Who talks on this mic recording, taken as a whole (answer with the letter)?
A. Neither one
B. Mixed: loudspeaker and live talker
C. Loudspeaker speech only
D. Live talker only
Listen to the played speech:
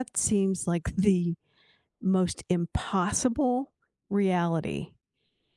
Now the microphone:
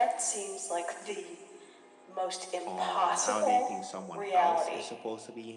B